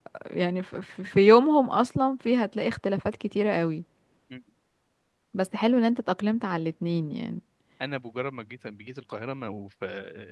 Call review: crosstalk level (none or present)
none